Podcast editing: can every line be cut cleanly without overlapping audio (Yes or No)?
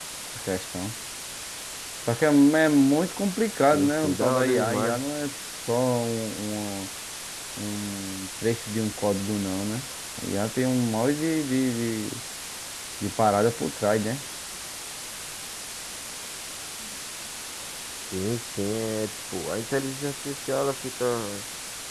No